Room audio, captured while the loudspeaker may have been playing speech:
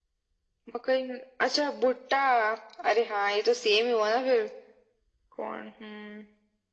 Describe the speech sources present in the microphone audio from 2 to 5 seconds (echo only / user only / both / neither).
echo only